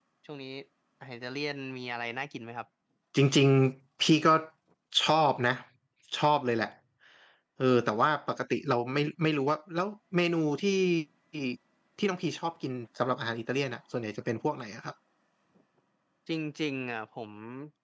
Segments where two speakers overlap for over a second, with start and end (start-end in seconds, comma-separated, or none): none